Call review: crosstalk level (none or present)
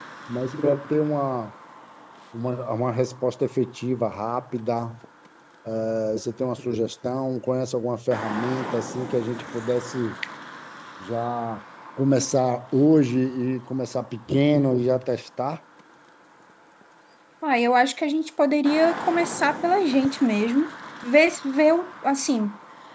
none